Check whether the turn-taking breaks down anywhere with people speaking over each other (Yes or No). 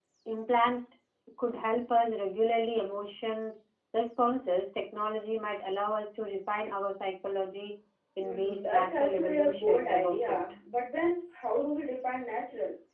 Yes